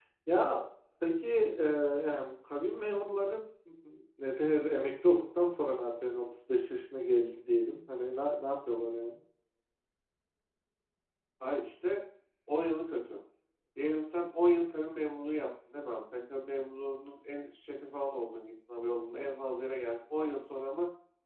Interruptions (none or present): none